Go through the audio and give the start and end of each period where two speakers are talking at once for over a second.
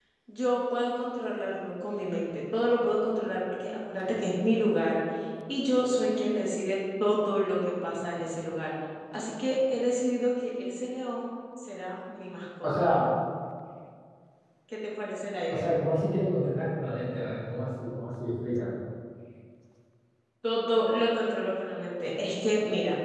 none

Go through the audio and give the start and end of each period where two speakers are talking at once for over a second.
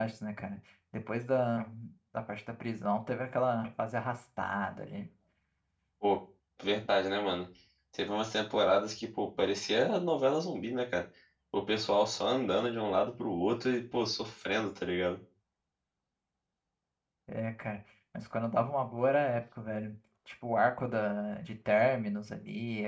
none

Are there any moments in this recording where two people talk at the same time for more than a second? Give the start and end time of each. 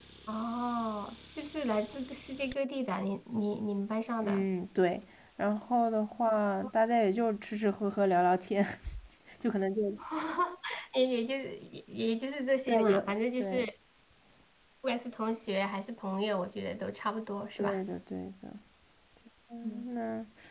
none

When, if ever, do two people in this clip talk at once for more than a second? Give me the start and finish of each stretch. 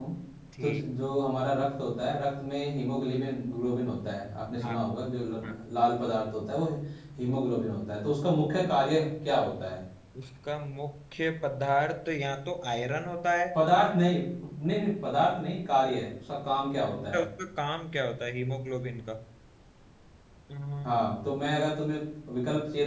none

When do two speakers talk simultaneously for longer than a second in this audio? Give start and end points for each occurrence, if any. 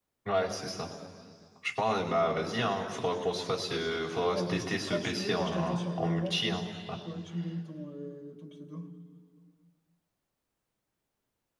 4.3-6.6

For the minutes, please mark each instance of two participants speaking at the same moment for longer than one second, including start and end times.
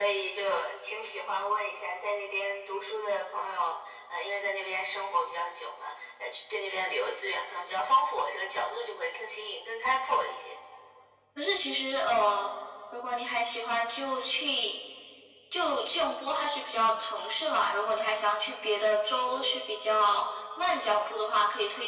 none

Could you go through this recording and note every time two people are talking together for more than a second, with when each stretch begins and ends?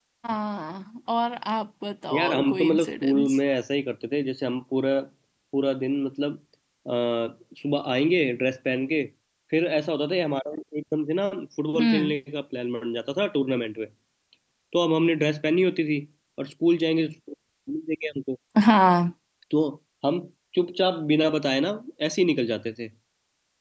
2.2-3.4

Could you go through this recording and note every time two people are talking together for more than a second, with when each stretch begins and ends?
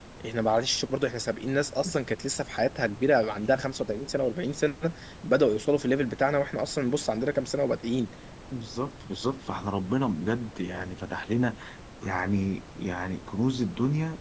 none

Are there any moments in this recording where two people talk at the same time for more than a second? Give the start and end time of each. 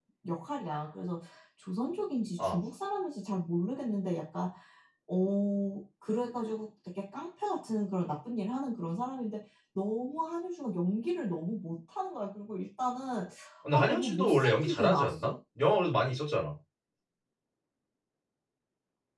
13.7-15.3

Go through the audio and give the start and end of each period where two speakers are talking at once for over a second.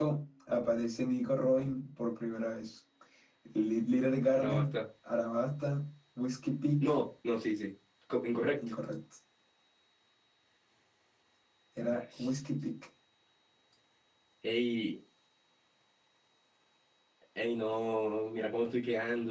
none

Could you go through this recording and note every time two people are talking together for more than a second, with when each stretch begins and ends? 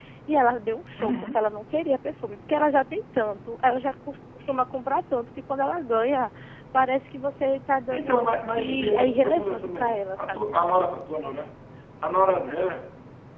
7.9-10.5

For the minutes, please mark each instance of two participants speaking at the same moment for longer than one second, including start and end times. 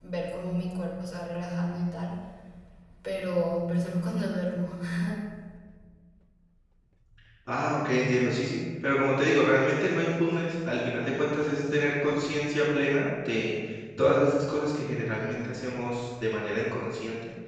none

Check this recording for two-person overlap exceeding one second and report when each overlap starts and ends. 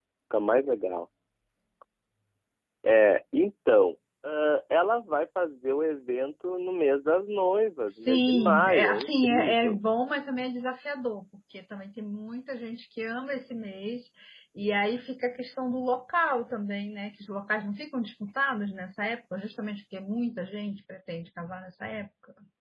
7.9-9.8

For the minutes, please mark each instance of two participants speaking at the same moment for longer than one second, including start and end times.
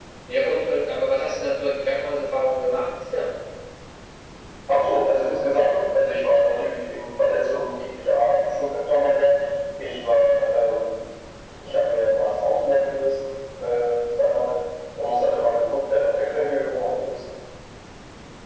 none

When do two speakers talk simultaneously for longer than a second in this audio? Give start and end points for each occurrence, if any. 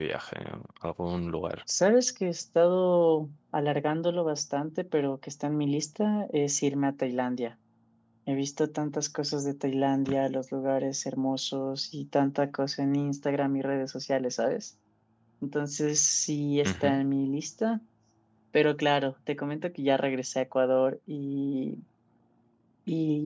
none

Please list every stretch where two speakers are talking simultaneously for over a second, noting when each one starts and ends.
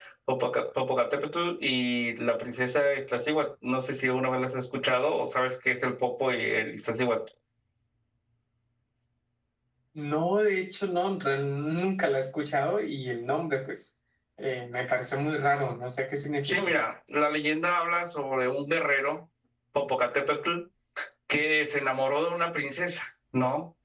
none

